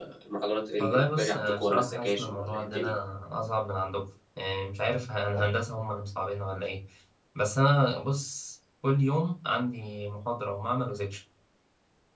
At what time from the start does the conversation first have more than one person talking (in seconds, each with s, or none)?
0.8 s